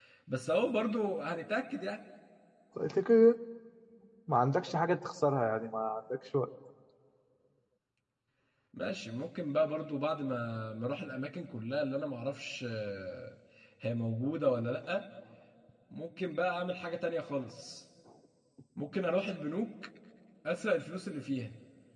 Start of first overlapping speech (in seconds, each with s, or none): none